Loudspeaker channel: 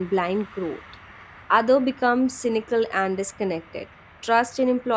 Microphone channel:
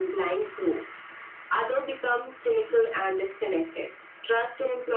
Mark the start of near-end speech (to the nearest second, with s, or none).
none